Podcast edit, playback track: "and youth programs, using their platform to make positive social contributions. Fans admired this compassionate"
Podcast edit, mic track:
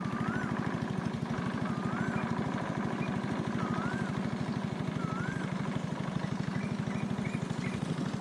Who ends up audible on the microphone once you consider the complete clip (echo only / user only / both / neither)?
neither